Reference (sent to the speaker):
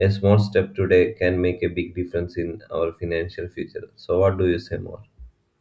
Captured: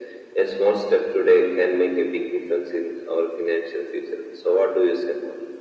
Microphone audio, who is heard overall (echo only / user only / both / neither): echo only